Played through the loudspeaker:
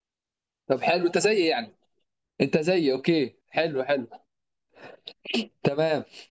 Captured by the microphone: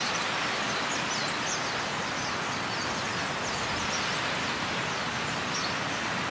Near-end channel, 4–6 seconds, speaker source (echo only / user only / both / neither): neither